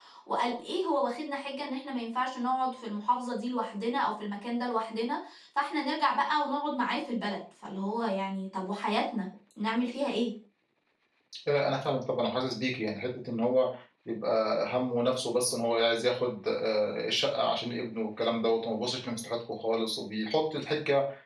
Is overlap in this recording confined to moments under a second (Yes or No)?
Yes